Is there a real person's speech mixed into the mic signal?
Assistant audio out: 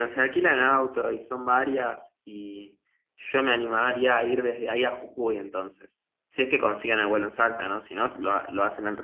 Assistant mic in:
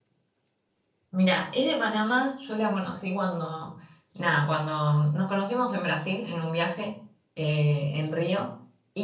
Yes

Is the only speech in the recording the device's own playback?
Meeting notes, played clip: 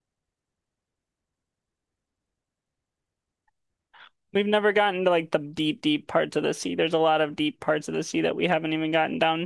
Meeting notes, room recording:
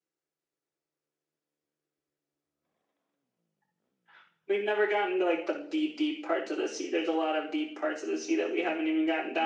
Yes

